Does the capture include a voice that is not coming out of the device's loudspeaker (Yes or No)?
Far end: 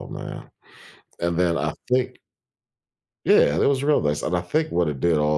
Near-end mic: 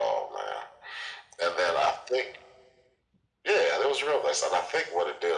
No